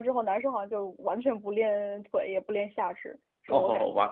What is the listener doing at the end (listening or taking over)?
taking over